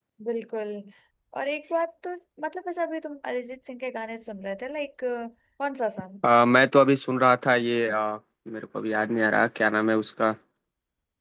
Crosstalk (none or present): none